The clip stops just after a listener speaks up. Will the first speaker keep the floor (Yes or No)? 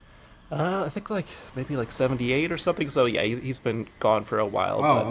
No